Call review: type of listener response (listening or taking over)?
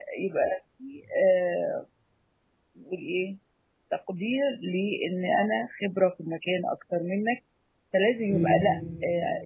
listening